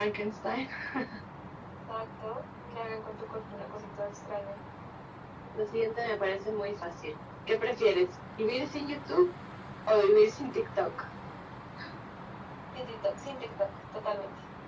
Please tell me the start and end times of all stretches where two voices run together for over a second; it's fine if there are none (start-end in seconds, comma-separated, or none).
none